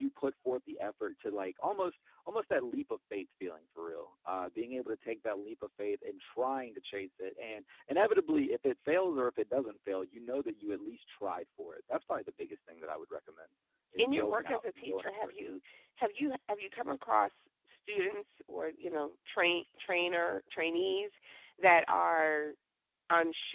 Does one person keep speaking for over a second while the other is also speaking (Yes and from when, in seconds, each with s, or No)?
Yes, from 14.0 s